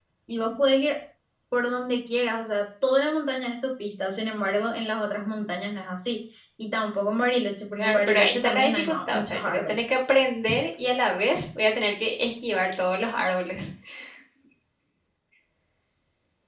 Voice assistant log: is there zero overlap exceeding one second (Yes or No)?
No